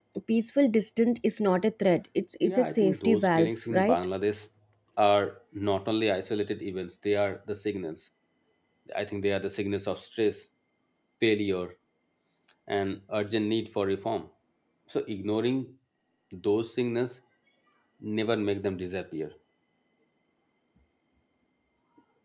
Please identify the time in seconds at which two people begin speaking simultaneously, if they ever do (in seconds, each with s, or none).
2.4 s